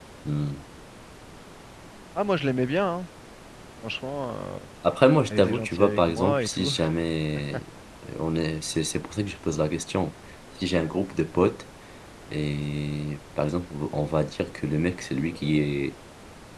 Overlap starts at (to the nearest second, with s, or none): 5 s